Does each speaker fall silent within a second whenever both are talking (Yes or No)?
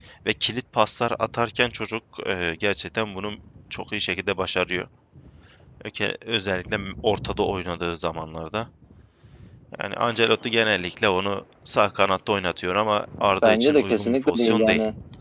No